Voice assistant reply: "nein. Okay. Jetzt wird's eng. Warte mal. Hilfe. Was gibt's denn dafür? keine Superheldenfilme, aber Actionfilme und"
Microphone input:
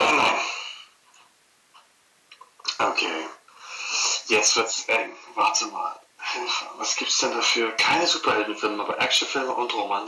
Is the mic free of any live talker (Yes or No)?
Yes